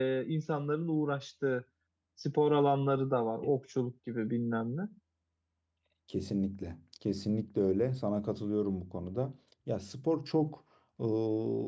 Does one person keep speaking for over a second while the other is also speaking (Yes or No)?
No